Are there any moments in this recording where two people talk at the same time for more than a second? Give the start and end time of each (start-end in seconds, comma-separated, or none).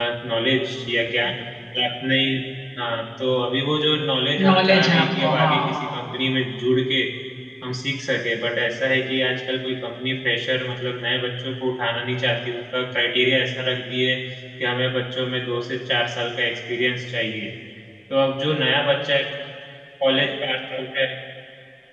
4.4-6.0